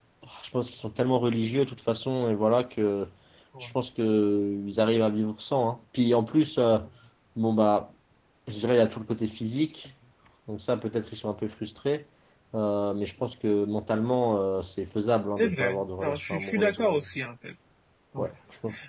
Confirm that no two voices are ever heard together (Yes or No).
No